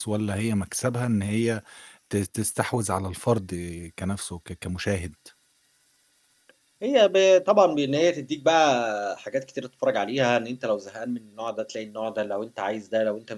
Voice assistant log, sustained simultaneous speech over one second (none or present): none